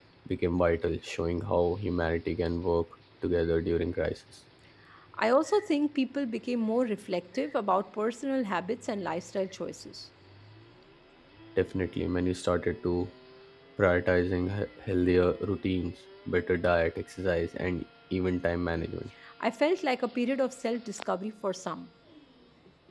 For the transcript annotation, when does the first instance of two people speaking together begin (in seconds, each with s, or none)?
none